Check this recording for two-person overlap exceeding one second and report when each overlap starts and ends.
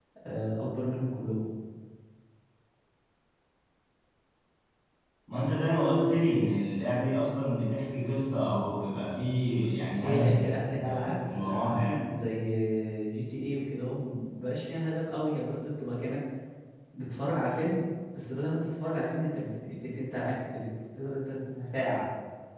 10.0-12.1

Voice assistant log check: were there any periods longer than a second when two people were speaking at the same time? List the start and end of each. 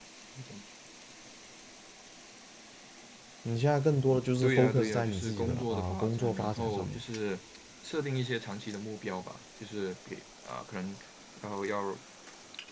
4.4-7.0

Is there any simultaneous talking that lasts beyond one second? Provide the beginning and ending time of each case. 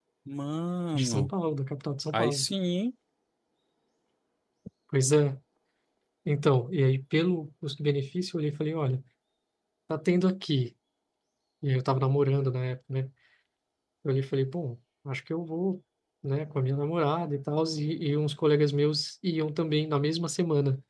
none

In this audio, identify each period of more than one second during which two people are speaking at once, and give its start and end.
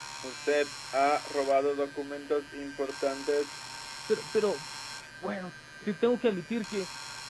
none

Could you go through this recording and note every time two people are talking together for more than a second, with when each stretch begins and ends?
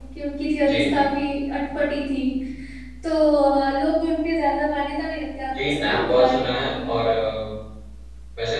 5.5-6.8

